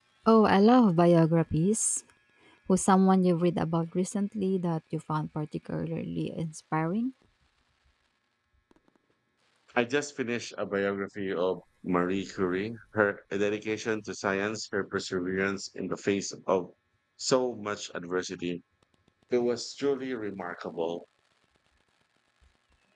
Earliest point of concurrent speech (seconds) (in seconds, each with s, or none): none